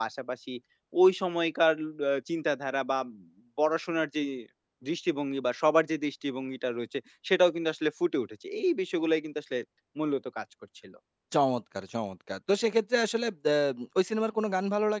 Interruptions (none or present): none